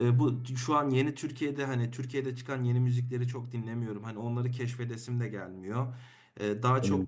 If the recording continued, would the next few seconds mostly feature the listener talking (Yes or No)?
No